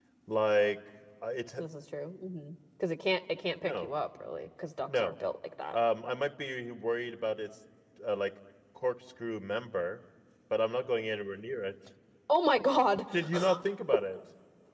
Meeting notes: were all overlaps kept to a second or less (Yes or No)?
Yes